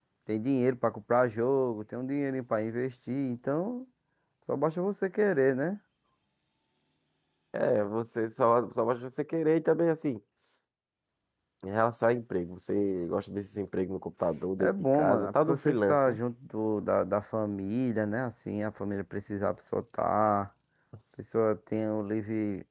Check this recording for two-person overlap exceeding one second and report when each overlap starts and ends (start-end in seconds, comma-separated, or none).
14.6-16.2